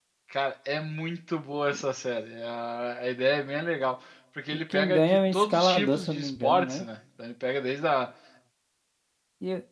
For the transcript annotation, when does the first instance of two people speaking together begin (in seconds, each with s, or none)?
4.5 s